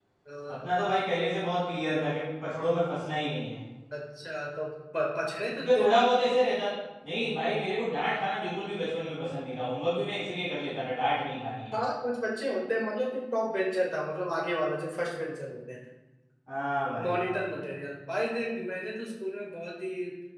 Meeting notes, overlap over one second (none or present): none